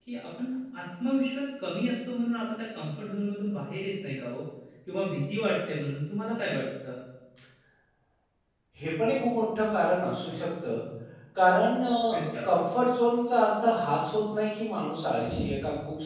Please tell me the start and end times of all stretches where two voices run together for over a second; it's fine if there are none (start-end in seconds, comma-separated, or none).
none